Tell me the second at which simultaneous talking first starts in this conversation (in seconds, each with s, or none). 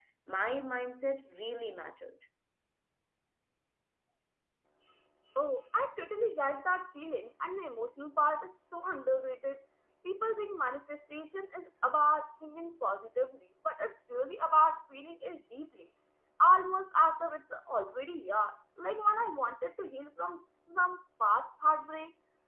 none